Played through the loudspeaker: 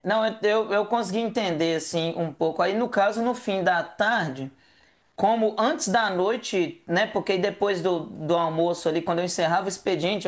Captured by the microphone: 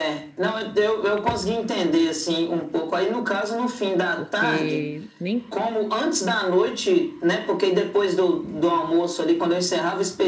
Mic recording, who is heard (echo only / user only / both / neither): both